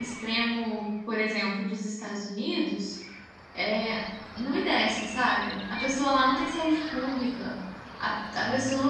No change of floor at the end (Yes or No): Yes